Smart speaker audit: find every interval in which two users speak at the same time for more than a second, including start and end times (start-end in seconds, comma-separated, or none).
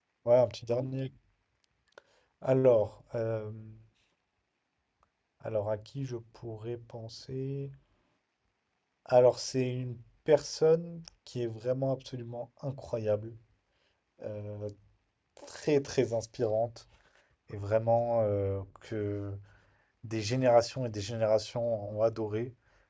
none